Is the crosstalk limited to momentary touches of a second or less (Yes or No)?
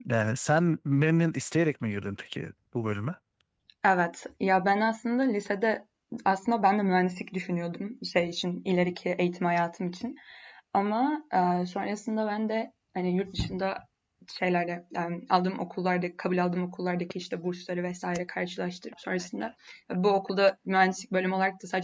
Yes